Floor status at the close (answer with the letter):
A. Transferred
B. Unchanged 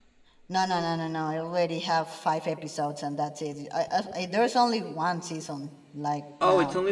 A